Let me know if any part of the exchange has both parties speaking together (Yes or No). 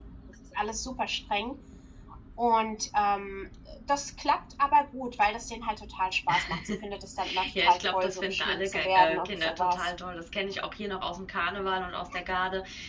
Yes